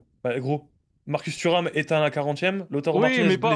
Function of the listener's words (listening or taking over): taking over